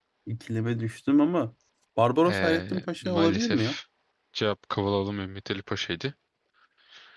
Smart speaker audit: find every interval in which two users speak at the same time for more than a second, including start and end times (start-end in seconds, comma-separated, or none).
2.2-3.8